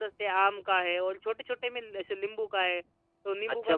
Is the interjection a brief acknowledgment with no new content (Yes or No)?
No